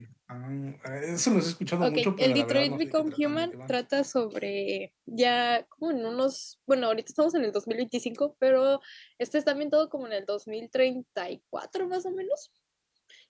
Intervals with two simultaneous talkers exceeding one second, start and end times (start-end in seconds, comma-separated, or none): 1.8-3.7